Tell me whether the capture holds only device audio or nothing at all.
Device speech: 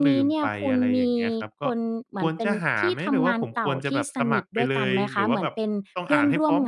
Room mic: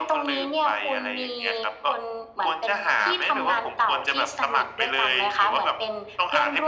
Yes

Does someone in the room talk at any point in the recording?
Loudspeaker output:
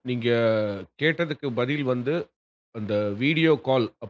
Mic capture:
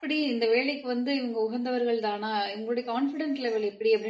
Yes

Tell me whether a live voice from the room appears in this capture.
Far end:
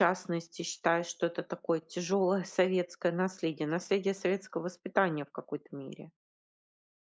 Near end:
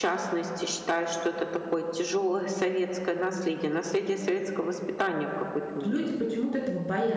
Yes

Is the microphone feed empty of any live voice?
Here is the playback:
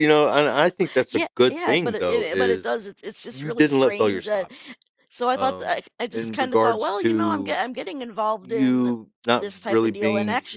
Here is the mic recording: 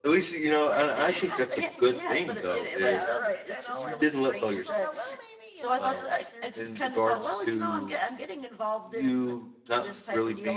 No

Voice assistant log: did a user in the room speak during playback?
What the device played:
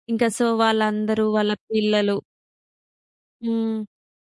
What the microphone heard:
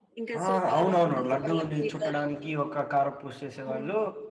Yes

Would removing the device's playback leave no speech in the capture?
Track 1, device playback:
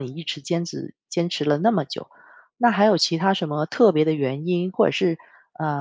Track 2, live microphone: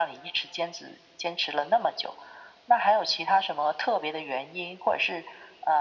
Yes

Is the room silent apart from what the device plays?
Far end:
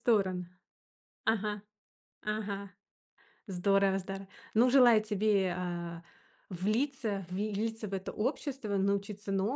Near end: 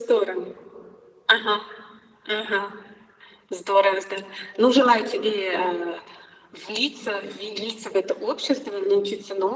Yes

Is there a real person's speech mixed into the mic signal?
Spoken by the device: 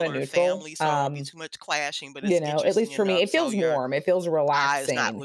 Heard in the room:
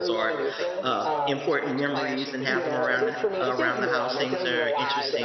Yes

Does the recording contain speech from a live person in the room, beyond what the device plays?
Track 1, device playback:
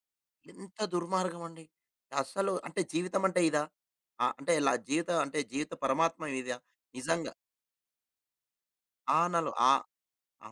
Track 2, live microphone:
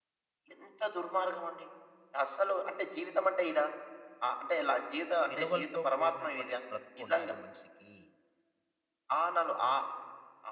Yes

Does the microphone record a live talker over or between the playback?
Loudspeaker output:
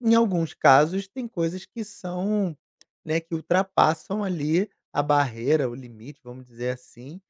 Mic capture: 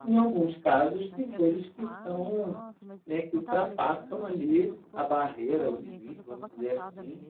Yes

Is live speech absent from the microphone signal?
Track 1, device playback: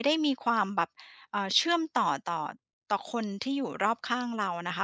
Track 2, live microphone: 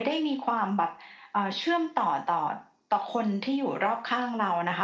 Yes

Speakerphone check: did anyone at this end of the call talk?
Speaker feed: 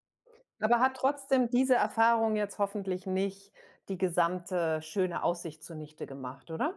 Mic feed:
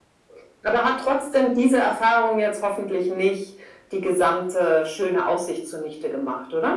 No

